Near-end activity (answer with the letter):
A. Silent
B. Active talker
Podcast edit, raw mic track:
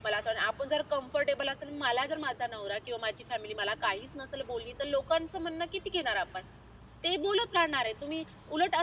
A